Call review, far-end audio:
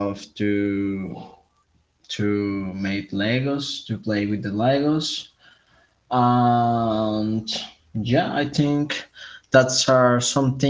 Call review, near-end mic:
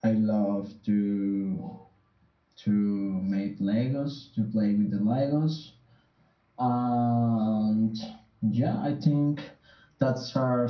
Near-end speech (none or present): none